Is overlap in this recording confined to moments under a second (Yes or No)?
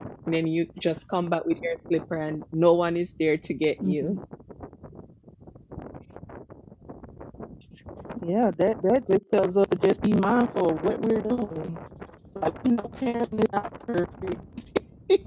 Yes